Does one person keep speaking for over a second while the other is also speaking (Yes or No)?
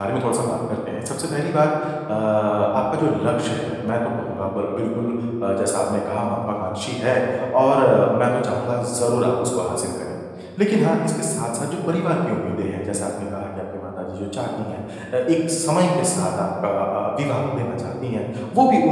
No